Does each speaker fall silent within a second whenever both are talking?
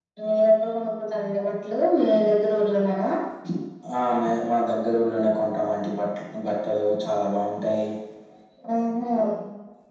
Yes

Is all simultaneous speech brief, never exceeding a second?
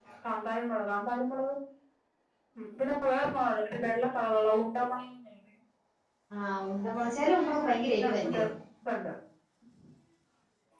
Yes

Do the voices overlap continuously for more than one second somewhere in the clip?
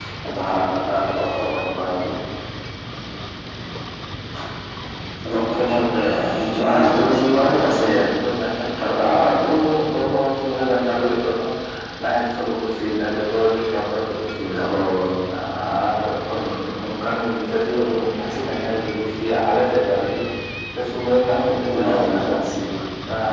Yes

